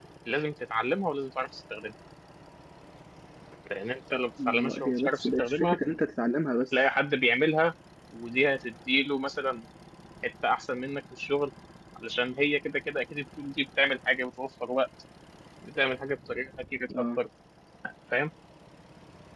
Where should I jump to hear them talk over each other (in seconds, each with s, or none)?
4.5 s